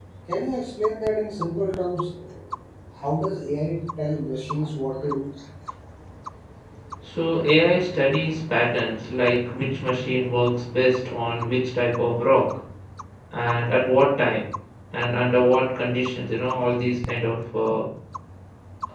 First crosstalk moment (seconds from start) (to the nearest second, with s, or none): none